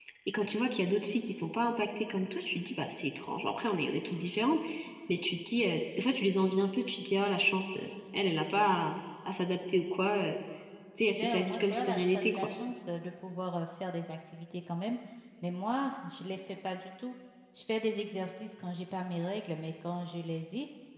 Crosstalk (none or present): present